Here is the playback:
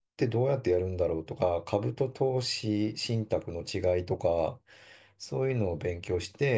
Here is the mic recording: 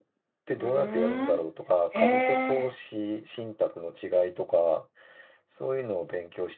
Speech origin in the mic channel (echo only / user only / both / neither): both